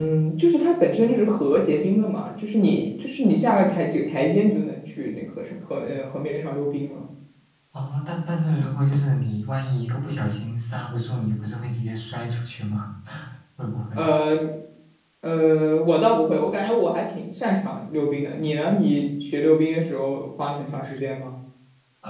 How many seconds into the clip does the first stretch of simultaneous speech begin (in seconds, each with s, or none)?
none